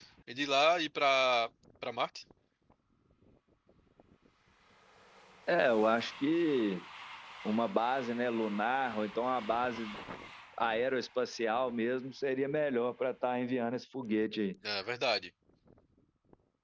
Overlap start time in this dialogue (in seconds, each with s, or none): none